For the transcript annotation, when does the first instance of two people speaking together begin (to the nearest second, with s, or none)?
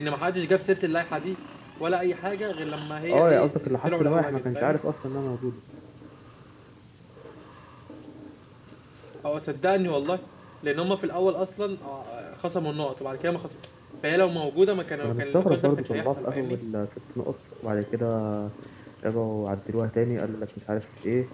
3 s